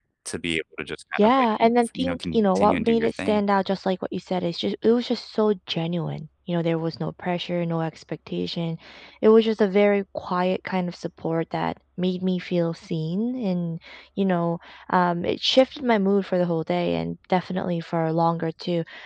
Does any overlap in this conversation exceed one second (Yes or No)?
Yes